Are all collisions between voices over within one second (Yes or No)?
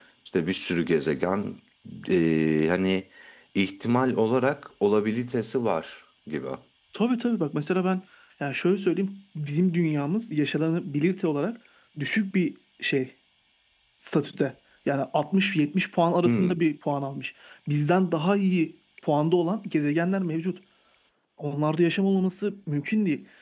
Yes